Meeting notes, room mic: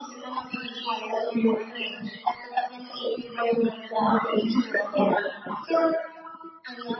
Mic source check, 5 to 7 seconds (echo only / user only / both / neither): echo only